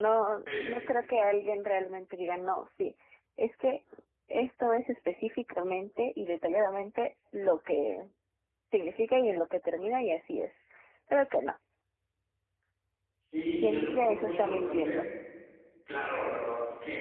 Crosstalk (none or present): present